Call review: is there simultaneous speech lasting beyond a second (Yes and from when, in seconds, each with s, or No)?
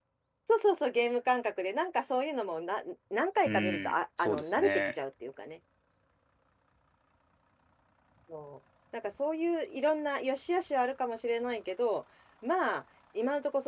Yes, from 3.4 s